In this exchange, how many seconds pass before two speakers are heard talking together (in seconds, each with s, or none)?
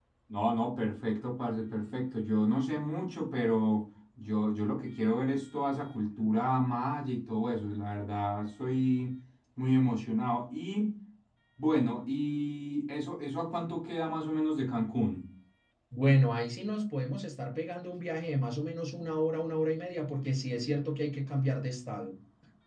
none